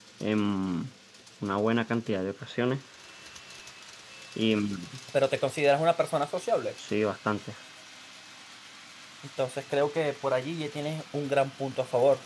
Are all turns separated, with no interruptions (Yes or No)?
Yes